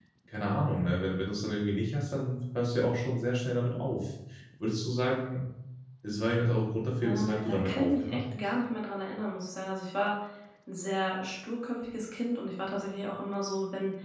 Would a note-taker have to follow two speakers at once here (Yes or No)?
Yes